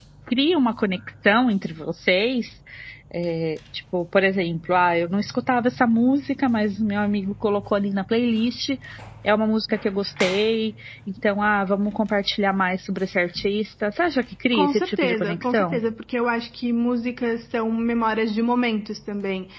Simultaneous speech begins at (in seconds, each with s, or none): 14.5 s